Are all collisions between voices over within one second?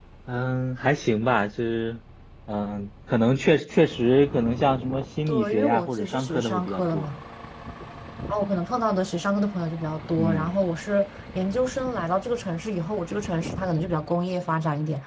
No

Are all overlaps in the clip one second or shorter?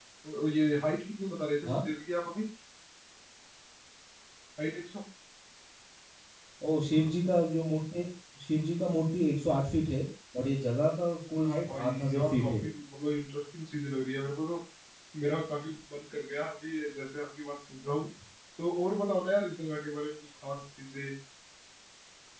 No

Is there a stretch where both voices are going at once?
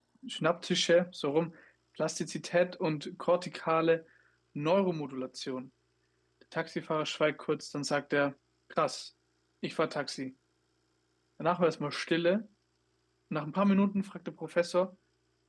No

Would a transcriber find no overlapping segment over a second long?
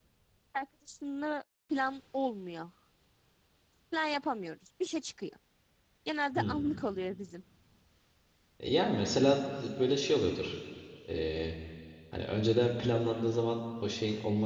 Yes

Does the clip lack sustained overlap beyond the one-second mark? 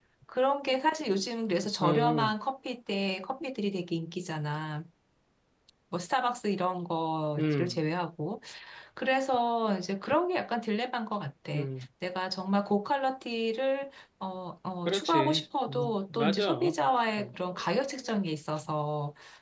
No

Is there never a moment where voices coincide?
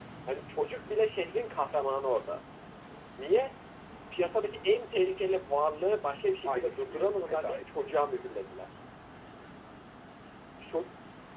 No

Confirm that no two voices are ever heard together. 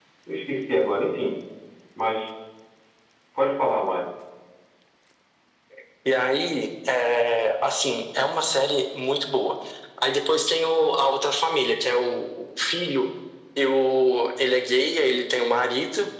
Yes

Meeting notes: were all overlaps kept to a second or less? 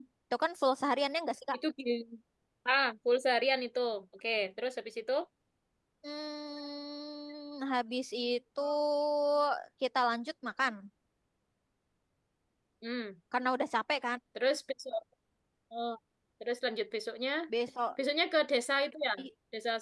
Yes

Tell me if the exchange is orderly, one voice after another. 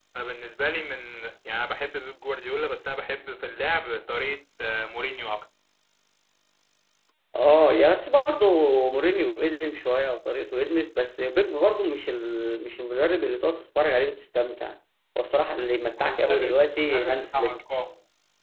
No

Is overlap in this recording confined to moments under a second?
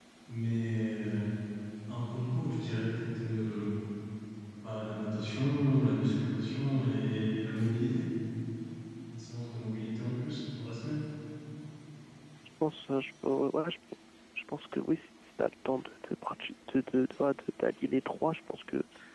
Yes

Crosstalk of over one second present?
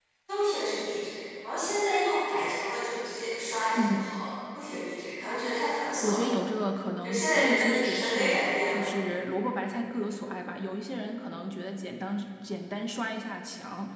Yes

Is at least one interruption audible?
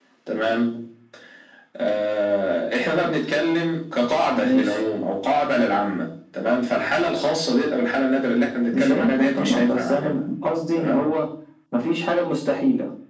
Yes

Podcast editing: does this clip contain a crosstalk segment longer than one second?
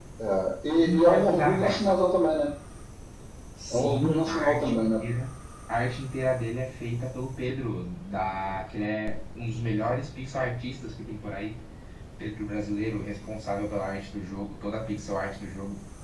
Yes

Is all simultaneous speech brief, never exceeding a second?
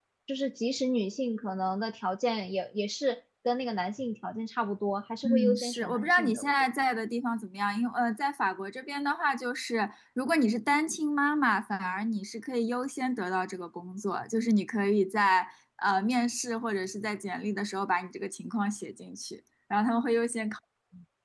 No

